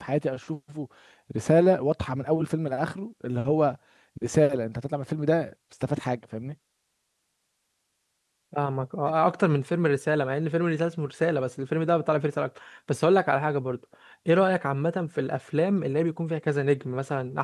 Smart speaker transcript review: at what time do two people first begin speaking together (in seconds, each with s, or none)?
none